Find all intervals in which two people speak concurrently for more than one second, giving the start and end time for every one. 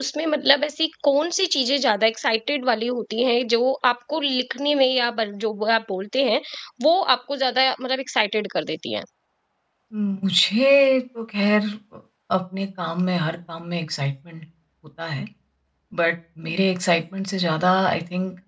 none

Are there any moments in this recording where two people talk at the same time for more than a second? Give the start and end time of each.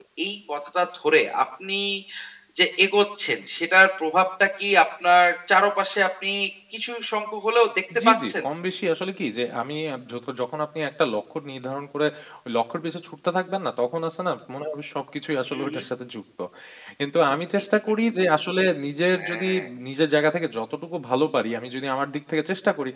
none

